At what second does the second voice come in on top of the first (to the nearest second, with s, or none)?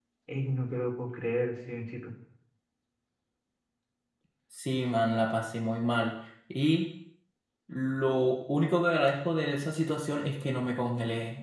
none